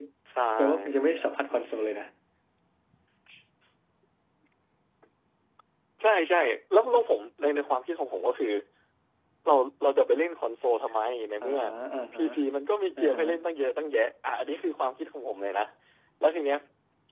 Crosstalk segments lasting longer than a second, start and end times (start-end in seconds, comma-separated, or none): none